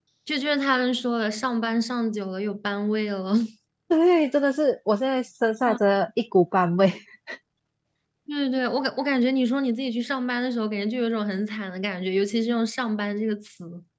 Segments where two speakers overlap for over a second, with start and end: none

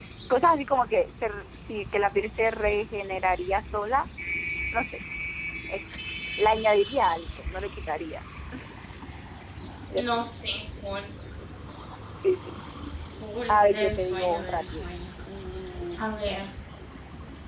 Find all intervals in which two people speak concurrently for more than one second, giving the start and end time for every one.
13.5-14.8

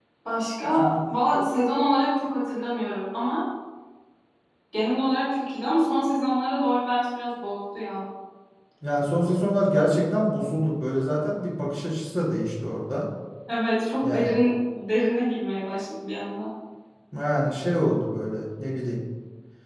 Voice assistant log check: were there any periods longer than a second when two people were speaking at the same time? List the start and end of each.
none

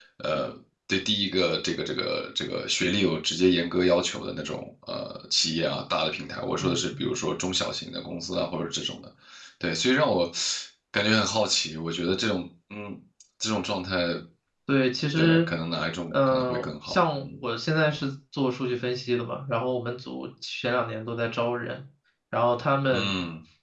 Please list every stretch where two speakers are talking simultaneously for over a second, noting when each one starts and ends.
16.1-17.4

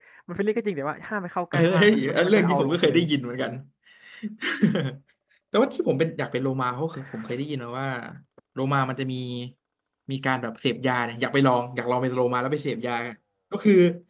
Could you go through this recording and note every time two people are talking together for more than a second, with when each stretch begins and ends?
1.5-2.9

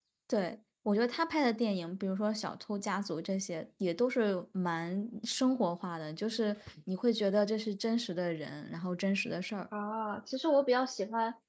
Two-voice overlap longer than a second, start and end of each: none

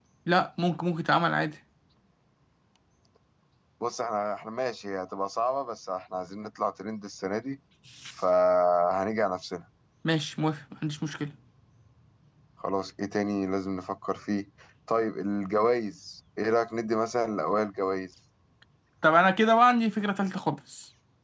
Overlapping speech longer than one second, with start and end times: none

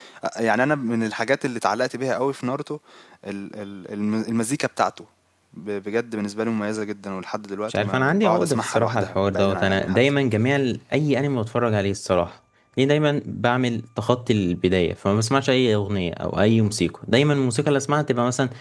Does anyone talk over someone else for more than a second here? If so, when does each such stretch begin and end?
7.7-10.0

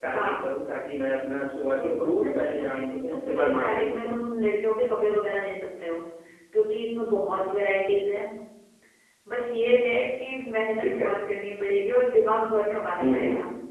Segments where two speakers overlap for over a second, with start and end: 1.7-4.3

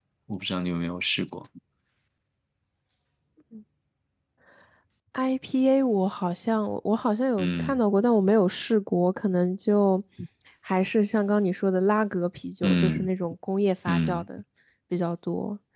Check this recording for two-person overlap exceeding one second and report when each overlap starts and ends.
none

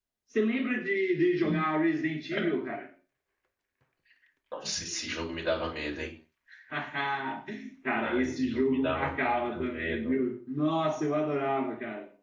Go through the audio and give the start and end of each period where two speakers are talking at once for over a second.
8.0-10.2

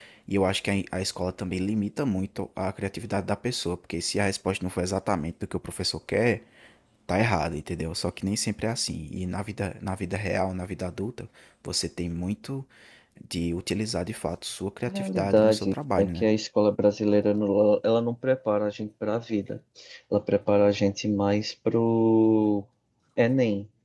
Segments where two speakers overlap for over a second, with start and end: 14.9-16.3

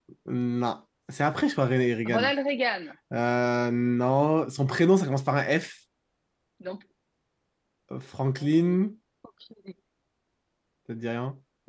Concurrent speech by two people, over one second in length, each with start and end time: none

